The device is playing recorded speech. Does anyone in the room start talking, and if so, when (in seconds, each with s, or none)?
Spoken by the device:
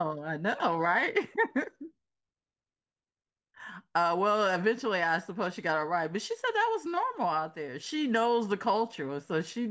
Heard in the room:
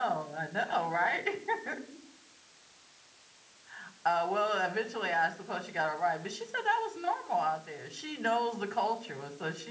none